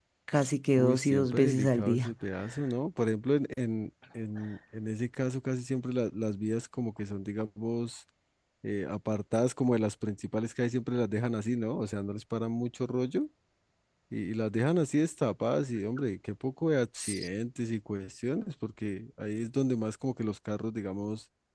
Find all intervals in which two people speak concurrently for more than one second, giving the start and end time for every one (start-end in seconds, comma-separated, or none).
0.8-2.1